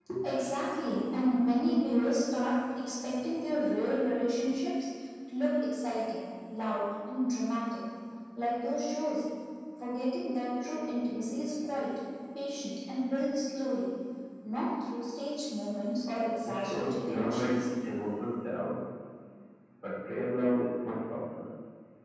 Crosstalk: present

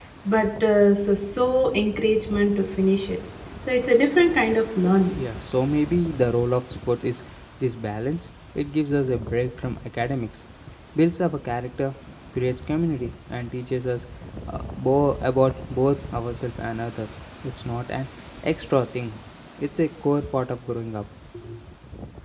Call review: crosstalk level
none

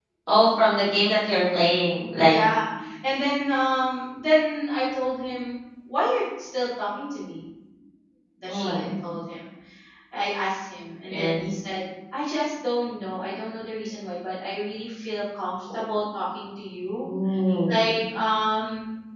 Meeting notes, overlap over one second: none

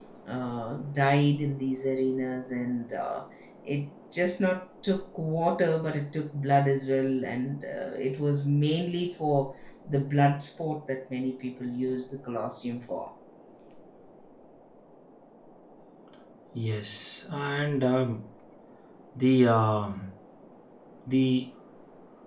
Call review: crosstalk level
none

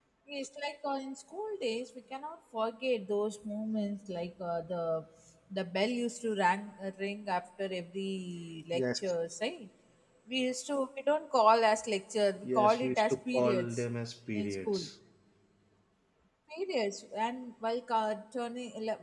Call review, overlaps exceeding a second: present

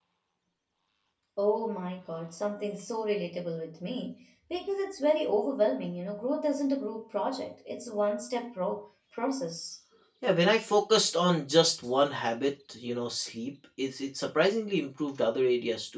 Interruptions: none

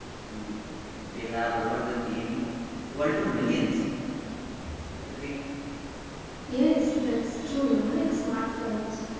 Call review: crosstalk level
none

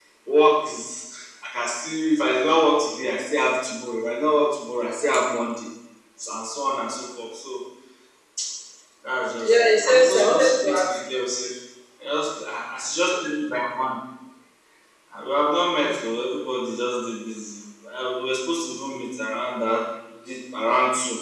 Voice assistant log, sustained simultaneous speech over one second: present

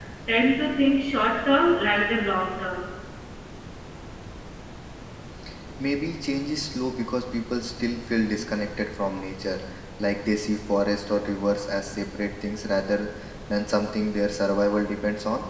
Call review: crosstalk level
none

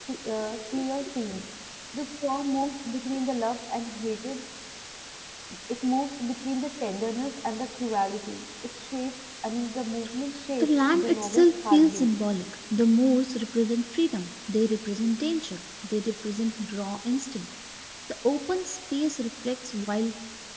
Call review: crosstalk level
present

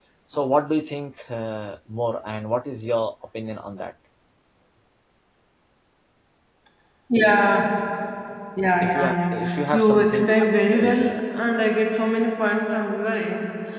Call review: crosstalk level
present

